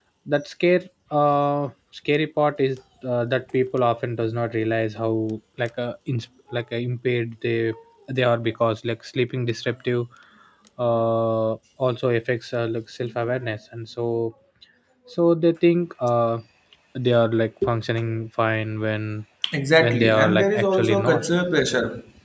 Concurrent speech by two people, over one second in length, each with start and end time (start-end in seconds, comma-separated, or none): 19.8-21.2